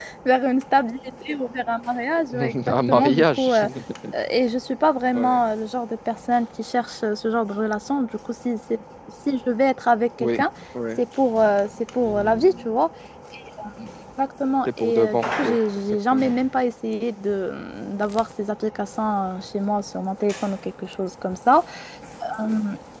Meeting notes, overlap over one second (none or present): present